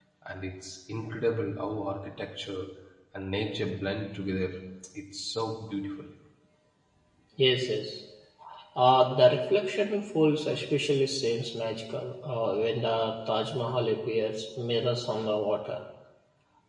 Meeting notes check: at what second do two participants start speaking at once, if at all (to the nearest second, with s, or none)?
none